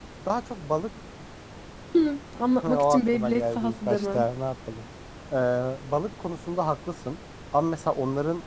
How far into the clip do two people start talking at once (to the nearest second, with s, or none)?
3 s